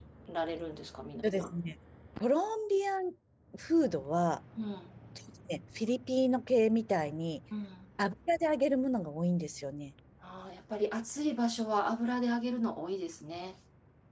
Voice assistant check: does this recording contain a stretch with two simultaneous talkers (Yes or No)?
No